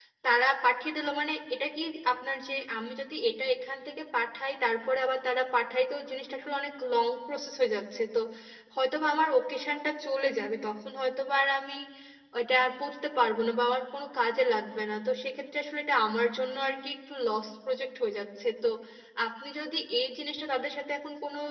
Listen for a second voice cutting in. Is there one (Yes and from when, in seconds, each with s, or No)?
No